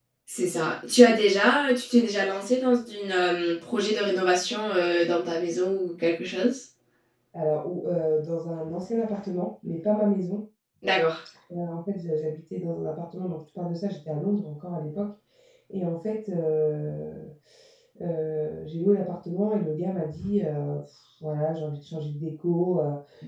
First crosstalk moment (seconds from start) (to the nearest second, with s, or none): none